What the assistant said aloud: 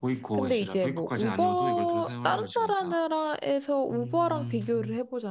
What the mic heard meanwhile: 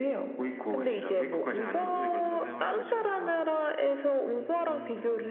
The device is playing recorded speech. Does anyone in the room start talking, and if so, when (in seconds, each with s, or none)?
none